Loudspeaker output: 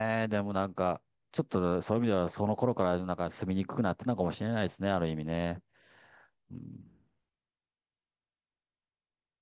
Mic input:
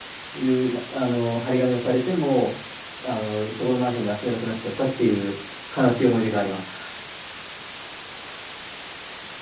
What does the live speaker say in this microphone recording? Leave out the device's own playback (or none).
いう、まあの、張り紙がされても、あの、そこのマンションで遊べなくなっちゃったっていう悲しい思い出があります。